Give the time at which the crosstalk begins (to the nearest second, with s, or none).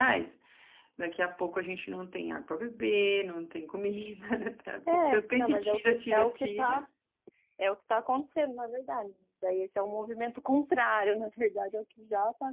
5 s